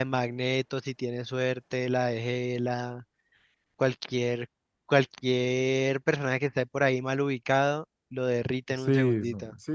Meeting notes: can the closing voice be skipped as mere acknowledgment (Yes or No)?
No